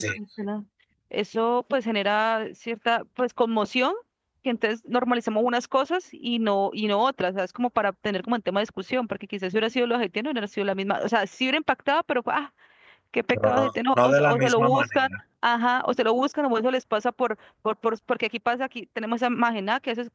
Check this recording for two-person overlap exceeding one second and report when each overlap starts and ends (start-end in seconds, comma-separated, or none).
13.3-15.1